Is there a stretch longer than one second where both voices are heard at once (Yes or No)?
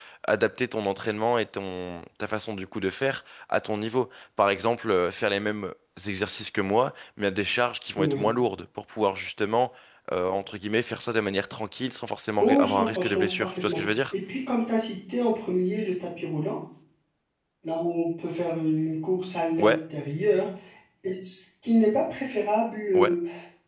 Yes